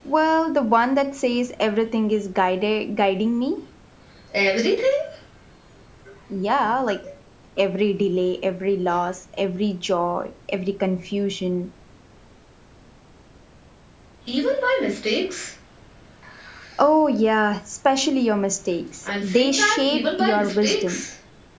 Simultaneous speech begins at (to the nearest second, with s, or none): 19 s